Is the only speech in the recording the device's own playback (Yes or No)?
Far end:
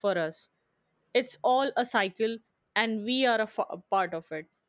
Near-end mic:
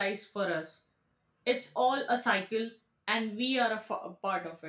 Yes